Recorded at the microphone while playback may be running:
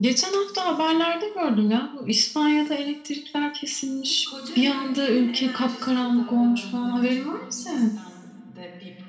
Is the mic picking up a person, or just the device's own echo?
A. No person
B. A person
B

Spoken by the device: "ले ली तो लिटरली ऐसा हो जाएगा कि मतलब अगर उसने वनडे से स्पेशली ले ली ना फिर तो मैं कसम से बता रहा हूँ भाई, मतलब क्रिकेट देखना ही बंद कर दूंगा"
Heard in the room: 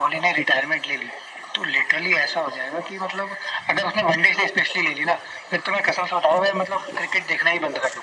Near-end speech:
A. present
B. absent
B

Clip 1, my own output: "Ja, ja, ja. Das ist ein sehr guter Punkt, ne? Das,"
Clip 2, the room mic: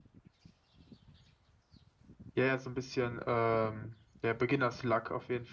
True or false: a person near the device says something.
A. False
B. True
B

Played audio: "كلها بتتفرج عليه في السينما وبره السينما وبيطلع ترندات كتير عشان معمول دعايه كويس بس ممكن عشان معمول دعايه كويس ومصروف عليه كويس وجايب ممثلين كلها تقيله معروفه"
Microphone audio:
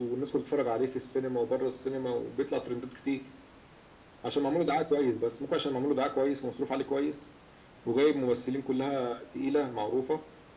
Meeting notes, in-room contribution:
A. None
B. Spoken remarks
A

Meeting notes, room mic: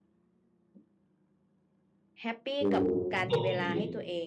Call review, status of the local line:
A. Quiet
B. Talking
B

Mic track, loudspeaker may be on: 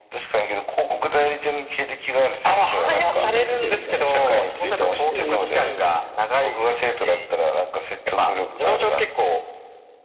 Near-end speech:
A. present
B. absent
A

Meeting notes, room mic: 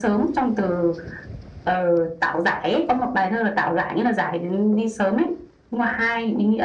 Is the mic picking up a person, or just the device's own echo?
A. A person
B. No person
B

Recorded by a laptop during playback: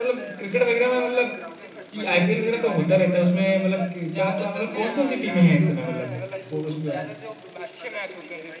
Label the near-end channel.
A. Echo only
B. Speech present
B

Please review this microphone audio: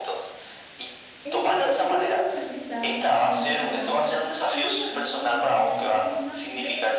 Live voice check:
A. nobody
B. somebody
B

